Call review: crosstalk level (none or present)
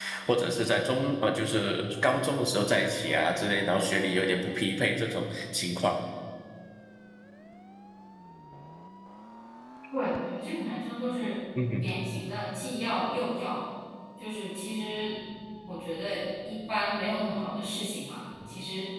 none